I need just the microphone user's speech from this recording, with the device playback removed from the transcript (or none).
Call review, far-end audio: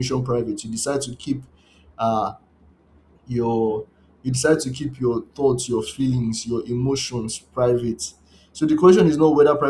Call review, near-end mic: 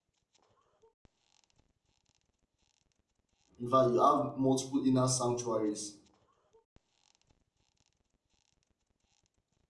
In fact, you have multiple inner sanctuaries.